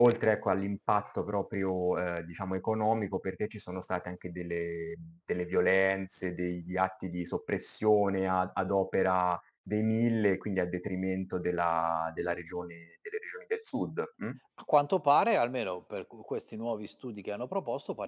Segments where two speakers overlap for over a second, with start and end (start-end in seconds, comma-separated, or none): none